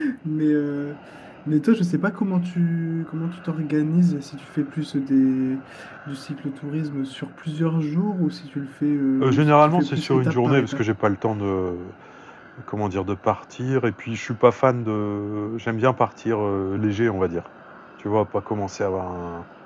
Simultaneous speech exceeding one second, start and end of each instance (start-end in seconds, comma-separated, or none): 9.2-10.8